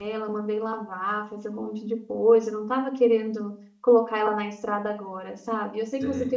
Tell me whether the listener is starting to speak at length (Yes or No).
No